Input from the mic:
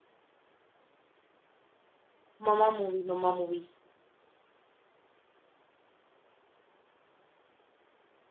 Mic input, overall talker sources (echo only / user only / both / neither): user only